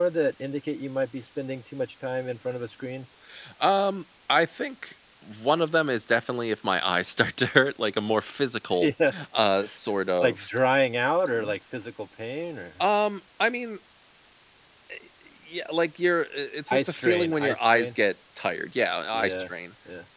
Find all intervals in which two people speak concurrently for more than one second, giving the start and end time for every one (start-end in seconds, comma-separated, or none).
16.7-18.0